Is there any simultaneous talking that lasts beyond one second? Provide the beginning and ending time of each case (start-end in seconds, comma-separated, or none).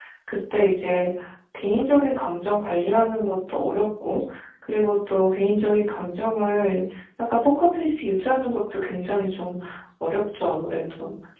none